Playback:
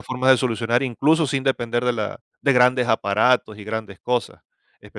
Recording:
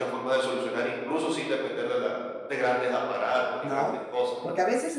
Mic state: both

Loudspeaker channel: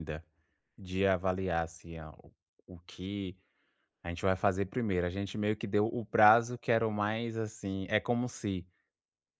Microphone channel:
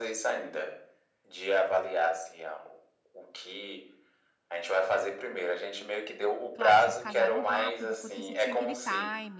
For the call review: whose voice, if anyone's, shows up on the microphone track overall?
both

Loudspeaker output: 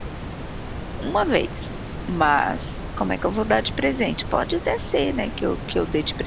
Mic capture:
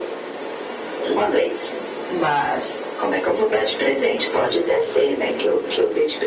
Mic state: echo only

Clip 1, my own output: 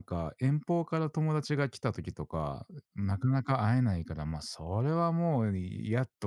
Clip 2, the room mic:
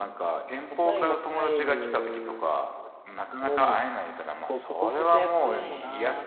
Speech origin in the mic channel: both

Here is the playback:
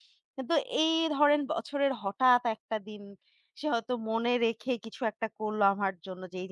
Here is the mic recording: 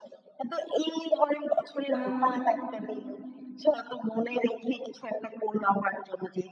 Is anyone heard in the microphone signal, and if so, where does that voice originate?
both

